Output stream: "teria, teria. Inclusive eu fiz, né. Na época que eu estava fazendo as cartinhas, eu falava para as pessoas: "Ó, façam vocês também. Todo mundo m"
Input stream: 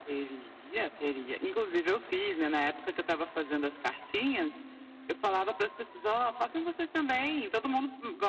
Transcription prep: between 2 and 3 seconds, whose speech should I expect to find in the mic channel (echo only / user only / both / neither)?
echo only